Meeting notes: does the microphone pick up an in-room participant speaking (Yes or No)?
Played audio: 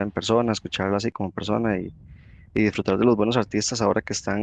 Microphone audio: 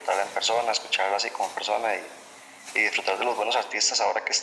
No